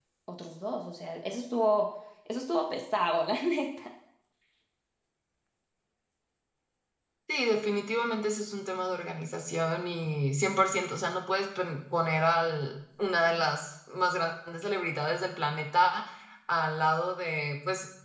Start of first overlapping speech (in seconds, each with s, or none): none